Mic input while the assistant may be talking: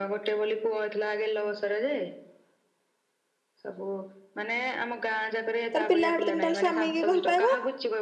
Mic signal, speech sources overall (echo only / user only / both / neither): both